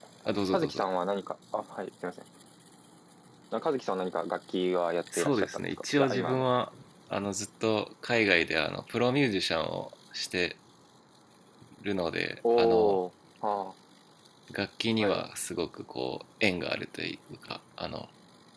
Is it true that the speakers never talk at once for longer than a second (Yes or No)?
No